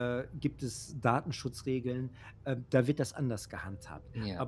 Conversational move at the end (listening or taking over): listening